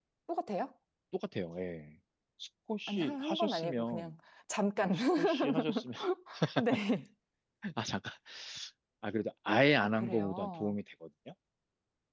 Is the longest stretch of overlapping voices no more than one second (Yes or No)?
No